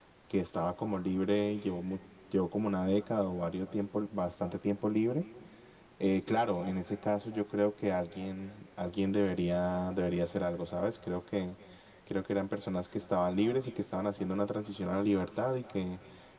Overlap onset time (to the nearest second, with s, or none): none